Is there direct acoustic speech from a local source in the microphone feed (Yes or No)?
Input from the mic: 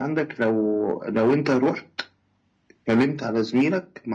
No